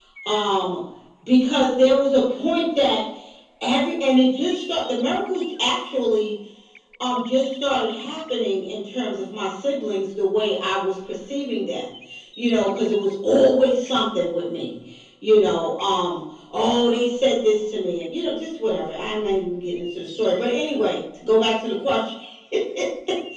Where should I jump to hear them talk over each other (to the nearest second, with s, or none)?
none